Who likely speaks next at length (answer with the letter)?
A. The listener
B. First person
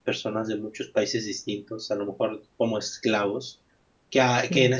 B